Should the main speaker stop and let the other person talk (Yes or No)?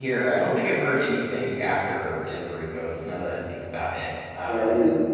Yes